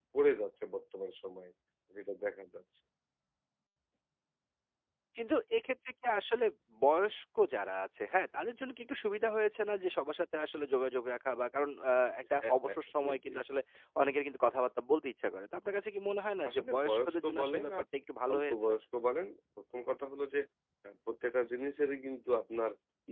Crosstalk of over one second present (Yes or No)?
Yes